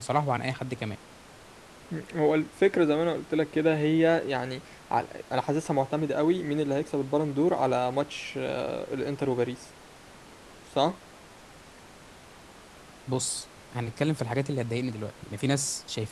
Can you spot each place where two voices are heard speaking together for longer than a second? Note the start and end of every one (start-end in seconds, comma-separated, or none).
none